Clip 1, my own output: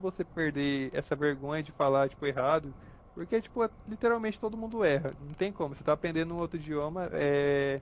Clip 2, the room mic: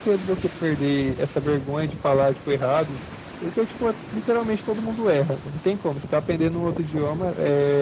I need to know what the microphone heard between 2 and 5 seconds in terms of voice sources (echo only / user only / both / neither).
echo only